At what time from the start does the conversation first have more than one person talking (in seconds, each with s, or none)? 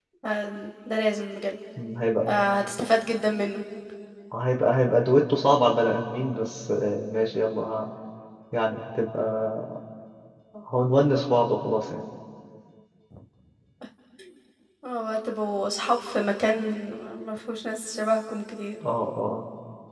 none